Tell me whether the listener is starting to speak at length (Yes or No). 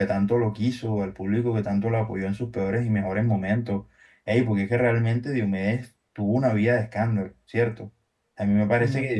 No